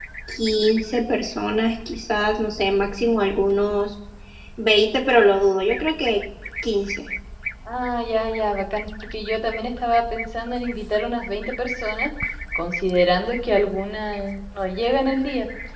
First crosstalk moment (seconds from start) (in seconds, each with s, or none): none